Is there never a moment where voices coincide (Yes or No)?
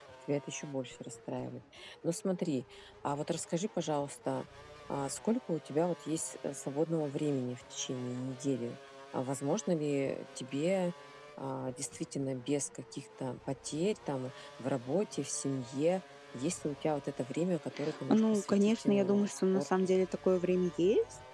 No